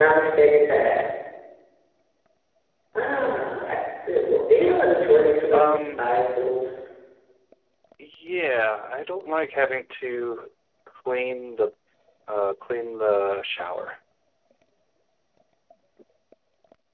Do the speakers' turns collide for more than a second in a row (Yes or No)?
No